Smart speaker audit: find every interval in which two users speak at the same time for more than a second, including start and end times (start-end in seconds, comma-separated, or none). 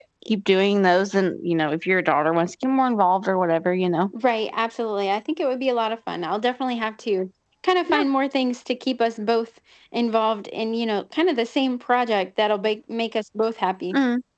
none